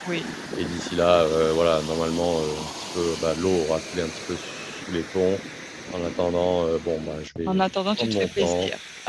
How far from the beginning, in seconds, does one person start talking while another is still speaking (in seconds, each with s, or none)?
7.5 s